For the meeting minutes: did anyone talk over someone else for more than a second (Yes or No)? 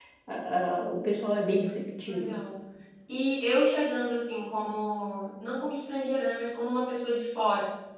No